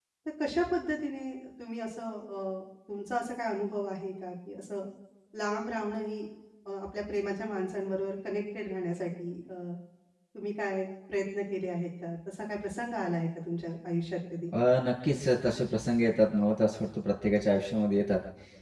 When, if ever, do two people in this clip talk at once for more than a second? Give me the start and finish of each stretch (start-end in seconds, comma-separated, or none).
none